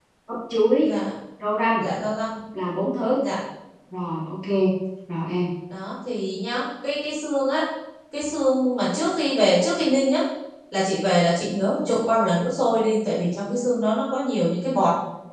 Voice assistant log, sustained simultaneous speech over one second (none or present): none